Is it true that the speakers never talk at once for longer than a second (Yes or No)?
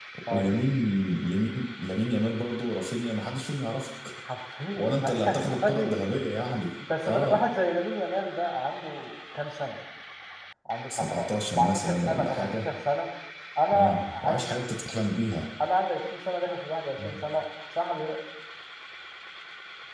No